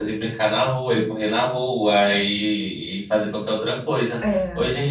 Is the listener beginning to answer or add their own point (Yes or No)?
No